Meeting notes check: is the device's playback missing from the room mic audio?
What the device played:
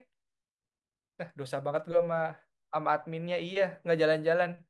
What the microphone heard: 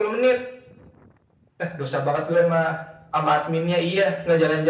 No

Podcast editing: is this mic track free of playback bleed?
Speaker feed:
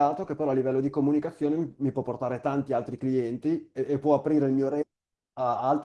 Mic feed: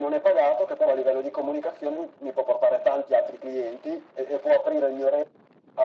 No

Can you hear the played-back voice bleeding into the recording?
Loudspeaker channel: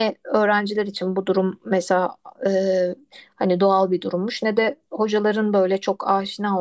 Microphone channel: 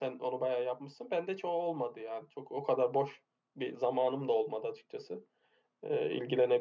No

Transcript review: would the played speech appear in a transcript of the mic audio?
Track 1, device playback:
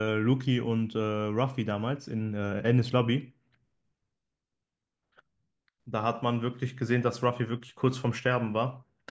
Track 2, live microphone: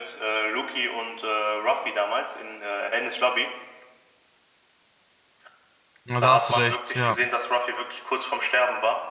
Yes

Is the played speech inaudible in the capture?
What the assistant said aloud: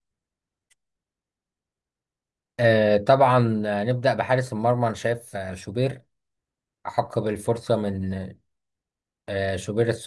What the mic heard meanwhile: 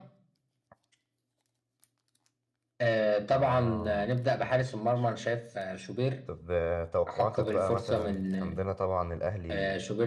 No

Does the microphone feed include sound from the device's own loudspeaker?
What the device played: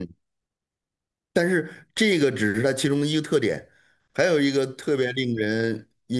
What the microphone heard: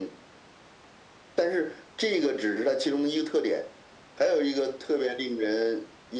Yes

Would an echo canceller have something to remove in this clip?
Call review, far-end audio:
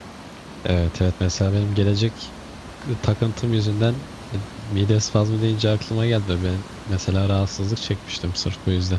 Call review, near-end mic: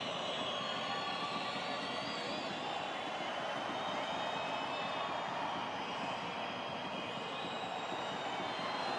No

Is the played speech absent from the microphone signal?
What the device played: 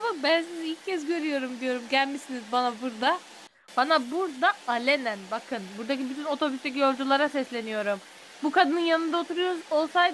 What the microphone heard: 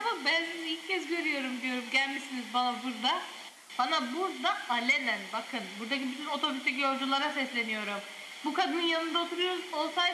No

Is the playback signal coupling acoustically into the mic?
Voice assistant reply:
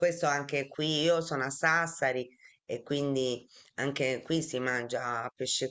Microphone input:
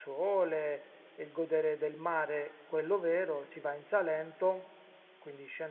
No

